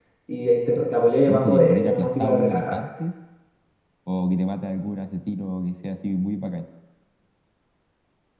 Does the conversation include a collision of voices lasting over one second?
Yes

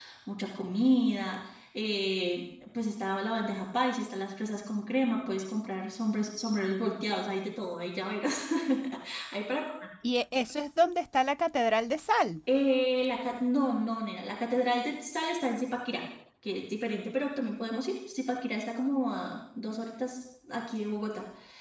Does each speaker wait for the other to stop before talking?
Yes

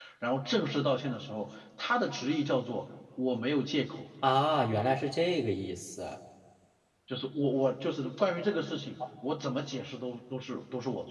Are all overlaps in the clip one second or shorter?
Yes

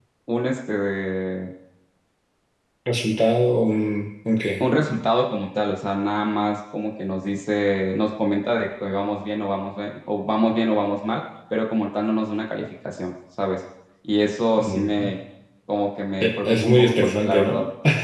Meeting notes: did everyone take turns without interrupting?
No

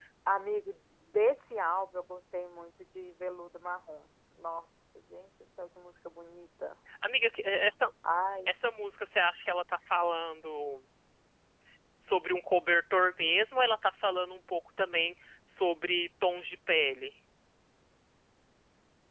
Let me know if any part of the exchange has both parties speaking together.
No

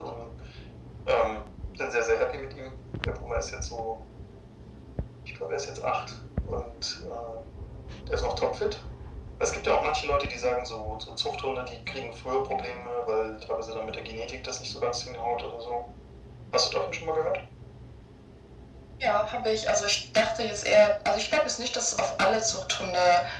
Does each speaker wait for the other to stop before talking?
Yes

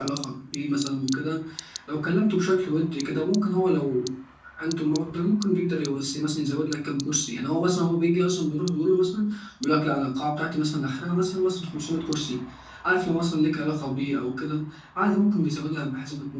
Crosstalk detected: No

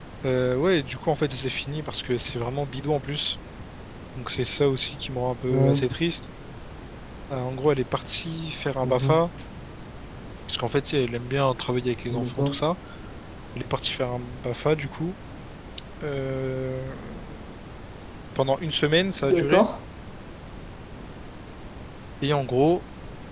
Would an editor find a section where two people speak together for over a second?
No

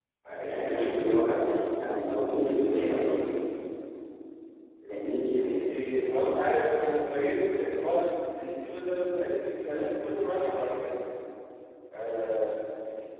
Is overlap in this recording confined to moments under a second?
Yes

